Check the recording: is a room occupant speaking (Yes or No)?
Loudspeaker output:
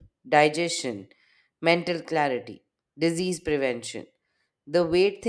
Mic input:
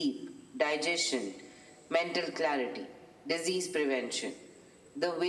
No